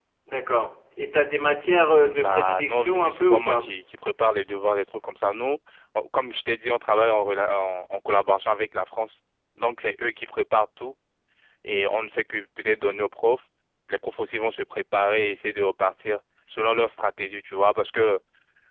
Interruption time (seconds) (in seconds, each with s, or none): 2.0 s